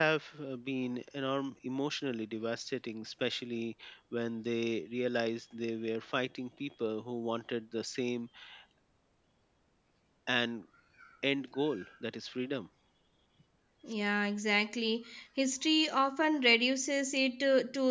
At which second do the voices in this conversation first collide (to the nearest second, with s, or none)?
none